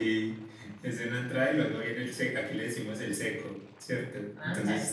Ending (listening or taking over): listening